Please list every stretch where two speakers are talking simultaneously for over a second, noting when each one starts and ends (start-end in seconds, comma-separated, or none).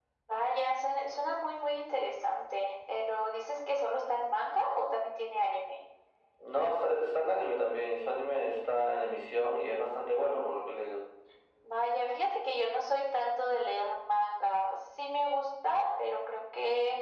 none